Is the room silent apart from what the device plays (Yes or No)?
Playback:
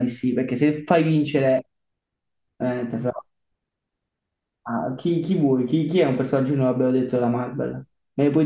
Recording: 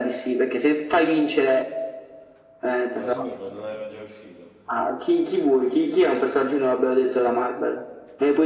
No